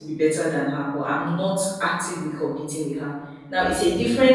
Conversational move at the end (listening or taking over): listening